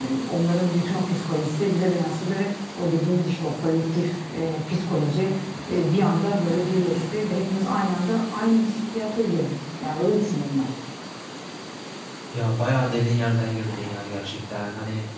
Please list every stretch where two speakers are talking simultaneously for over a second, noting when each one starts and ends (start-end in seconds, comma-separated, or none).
none